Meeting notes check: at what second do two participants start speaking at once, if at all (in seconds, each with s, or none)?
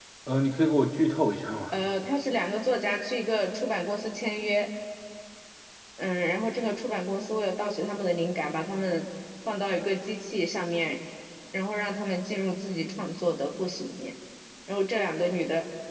none